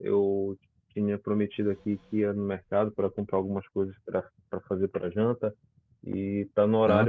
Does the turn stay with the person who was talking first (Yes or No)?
Yes